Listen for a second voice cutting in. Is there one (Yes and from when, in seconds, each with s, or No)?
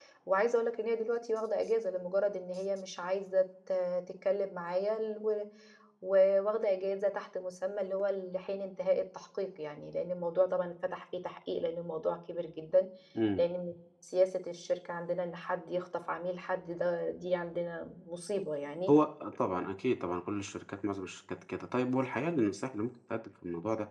No